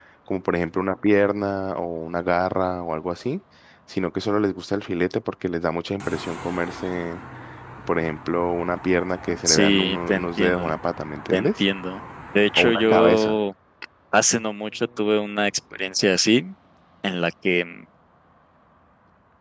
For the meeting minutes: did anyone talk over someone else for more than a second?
Yes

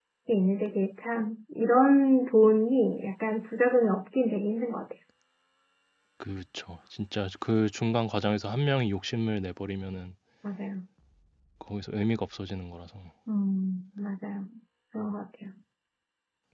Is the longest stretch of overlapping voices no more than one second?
Yes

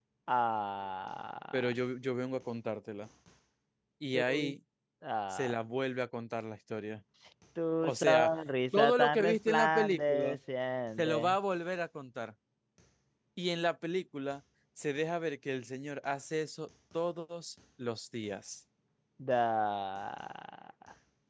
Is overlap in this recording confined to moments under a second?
No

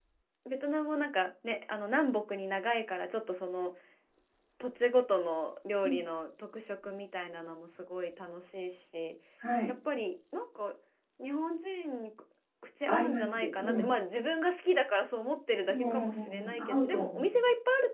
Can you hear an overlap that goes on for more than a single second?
Yes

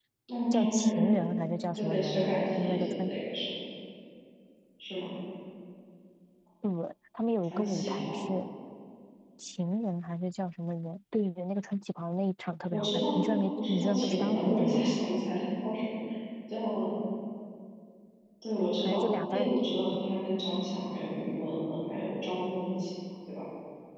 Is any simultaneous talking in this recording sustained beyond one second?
Yes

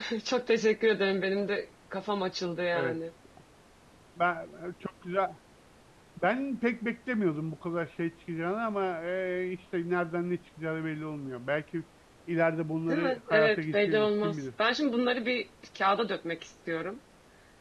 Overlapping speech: Yes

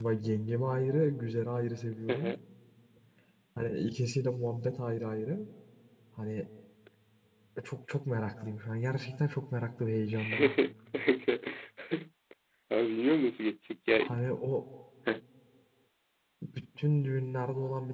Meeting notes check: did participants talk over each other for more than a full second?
No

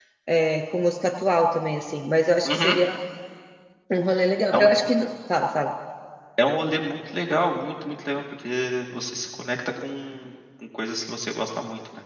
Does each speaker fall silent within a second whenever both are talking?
Yes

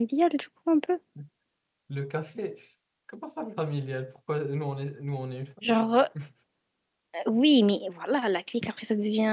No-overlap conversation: Yes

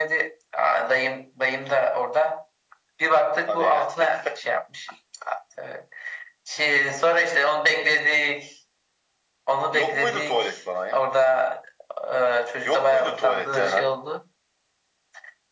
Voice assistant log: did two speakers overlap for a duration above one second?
Yes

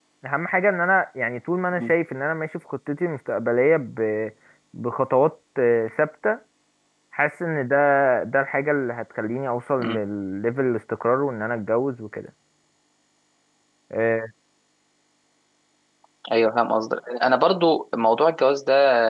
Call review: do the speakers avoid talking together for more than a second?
Yes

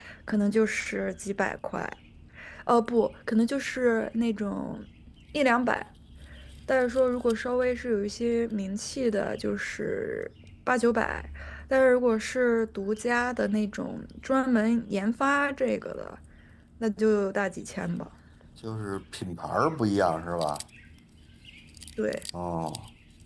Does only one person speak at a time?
Yes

